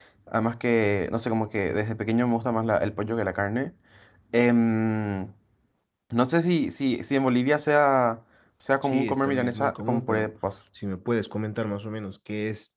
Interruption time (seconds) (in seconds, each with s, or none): 8.8 s